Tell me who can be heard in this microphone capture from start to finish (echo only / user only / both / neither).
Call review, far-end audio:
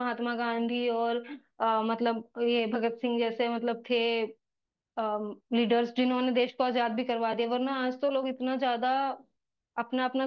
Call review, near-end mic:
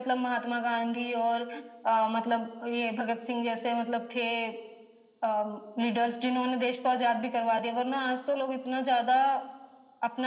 echo only